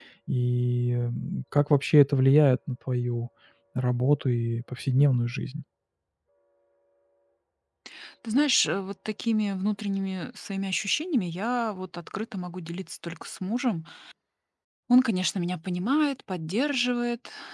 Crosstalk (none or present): none